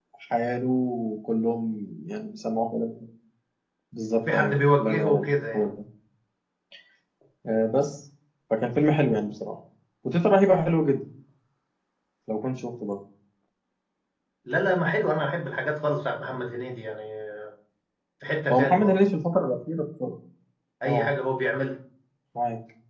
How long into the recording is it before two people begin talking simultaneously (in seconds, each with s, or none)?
4.3 s